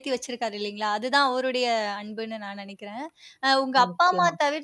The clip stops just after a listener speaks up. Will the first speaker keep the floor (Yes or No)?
Yes